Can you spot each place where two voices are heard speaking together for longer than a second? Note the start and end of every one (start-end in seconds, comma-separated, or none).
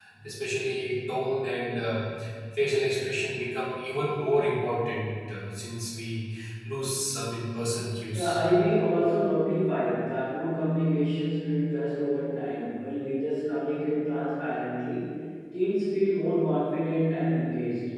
none